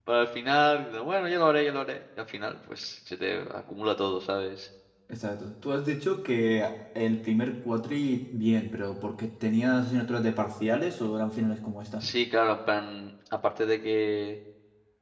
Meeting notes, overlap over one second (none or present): none